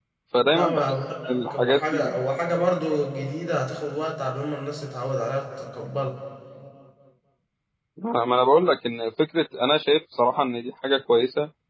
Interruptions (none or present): present